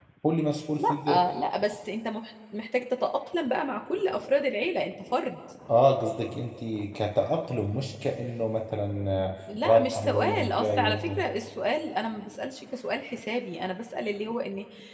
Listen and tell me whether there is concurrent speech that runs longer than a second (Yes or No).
Yes